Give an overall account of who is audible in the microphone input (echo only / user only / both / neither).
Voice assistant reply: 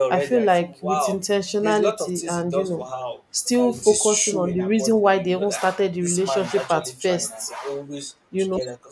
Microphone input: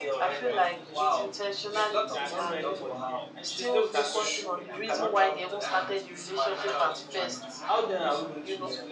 both